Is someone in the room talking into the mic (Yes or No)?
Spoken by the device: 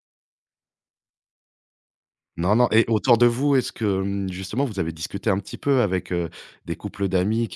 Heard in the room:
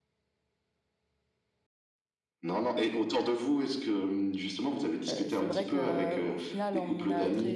Yes